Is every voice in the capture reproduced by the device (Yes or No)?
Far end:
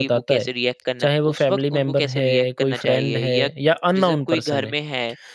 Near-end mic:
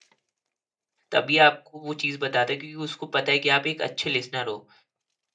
No